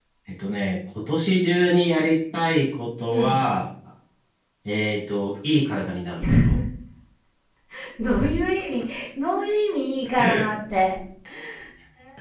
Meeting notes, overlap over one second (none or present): none